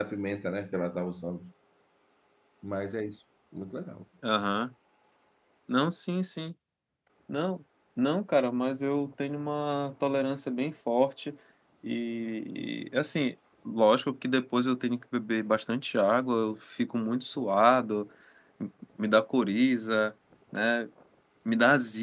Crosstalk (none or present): none